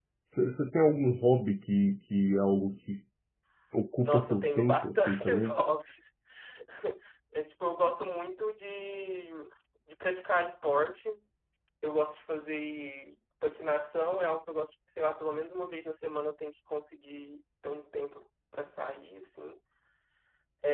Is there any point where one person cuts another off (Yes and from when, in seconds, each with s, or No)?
Yes, from 4.0 s